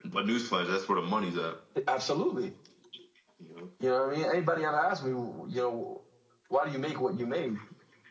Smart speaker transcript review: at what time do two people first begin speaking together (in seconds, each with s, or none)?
none